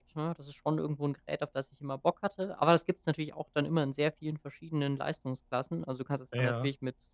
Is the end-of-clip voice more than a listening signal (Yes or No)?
No